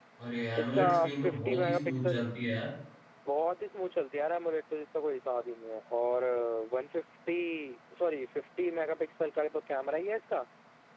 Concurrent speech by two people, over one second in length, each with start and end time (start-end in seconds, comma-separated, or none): 0.6-2.2